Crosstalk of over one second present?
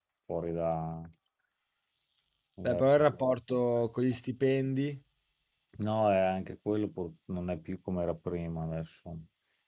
No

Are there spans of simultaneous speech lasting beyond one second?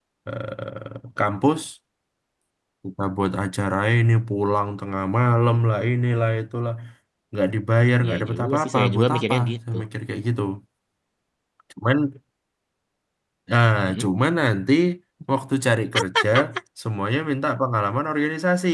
Yes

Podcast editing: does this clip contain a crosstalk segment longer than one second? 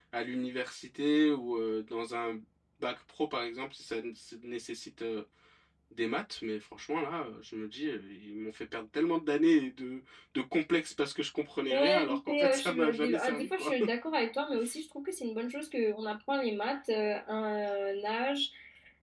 Yes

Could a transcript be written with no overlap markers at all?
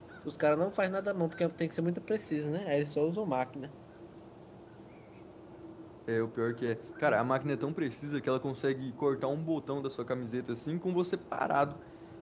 Yes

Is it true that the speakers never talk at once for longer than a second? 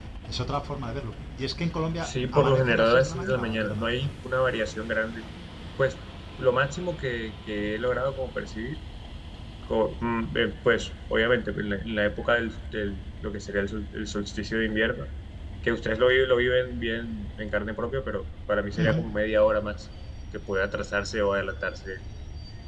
No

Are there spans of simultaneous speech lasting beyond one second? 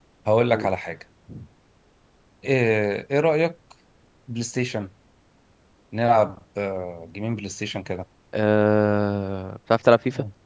No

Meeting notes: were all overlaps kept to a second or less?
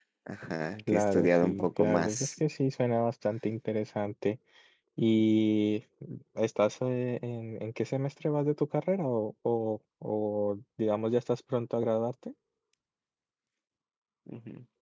No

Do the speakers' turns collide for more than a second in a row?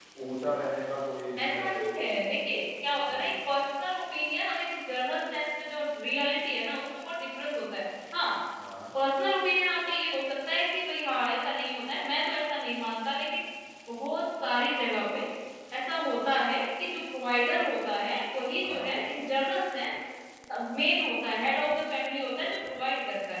No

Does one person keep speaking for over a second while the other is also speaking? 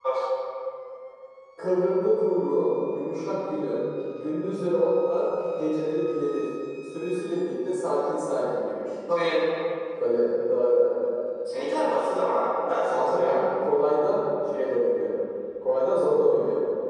No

